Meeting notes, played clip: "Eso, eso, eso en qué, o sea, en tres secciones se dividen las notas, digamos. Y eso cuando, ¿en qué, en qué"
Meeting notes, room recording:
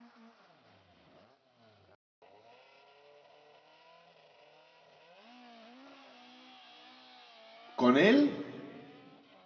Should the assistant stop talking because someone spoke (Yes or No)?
Yes